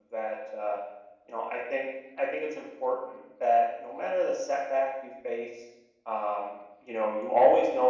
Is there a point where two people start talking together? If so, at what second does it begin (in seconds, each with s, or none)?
none